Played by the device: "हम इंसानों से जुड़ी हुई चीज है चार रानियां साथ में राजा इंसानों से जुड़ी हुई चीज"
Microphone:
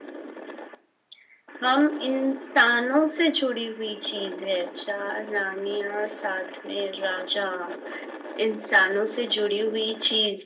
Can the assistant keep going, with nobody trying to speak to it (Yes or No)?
Yes